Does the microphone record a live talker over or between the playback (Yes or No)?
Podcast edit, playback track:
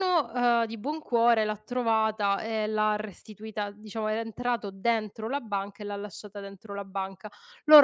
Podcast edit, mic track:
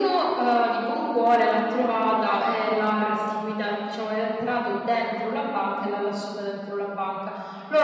No